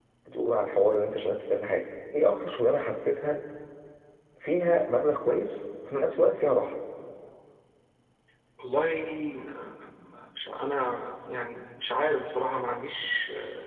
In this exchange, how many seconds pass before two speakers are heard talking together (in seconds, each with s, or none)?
none